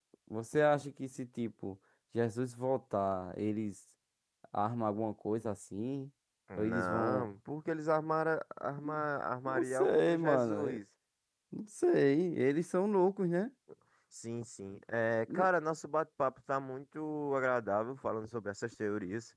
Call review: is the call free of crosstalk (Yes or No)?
No